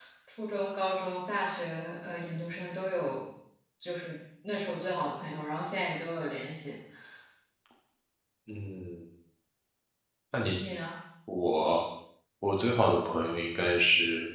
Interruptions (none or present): none